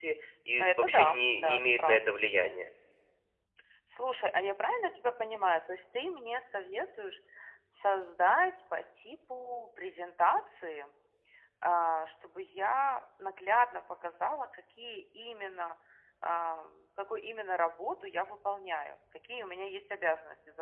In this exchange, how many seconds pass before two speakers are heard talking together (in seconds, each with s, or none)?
0.6 s